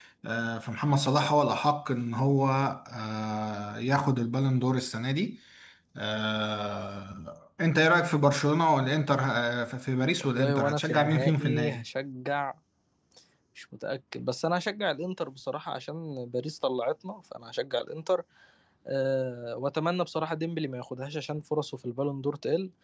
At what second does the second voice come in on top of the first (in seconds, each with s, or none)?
10.2 s